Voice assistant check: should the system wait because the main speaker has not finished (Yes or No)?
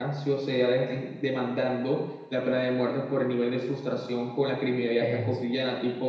Yes